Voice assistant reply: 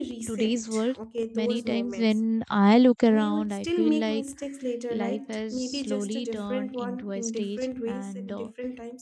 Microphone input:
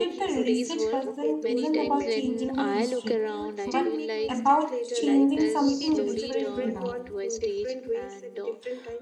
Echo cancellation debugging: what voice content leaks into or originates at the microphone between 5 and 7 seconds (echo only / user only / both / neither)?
both